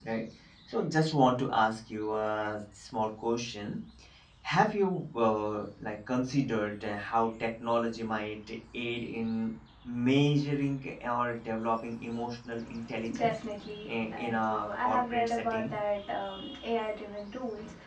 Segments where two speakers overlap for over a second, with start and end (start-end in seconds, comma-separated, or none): 13.9-15.7